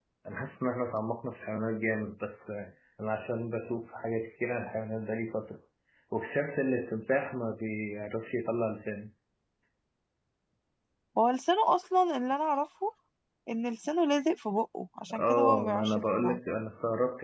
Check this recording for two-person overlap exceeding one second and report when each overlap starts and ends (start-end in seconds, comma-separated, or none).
15.1-16.4